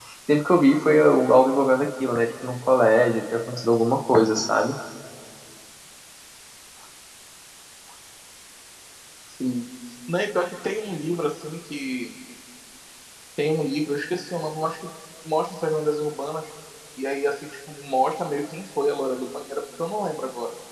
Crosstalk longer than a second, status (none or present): none